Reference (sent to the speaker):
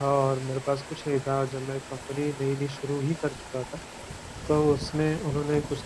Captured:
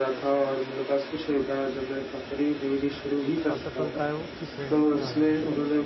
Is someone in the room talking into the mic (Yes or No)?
Yes